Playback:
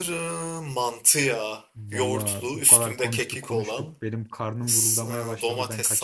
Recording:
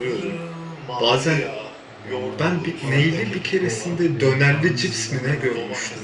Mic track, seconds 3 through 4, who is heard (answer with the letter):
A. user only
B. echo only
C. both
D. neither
C